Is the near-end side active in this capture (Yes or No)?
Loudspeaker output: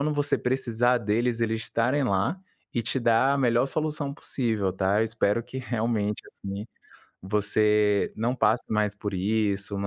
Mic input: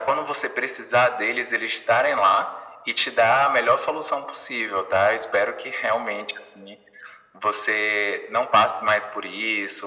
No